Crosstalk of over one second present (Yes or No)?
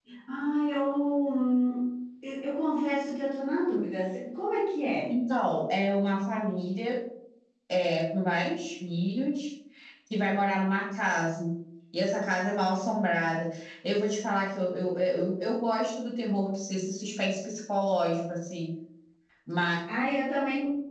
No